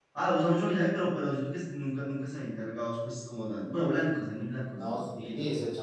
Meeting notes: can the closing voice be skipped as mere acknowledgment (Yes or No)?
No